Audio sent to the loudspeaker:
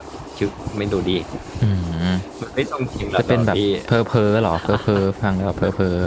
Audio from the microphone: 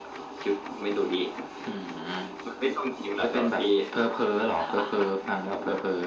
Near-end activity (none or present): none